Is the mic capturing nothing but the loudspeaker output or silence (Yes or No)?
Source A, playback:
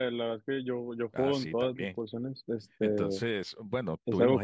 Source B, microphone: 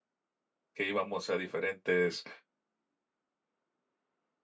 No